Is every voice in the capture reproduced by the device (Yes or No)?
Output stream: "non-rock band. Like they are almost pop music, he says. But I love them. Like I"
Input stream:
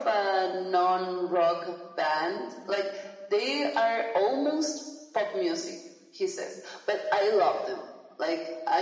Yes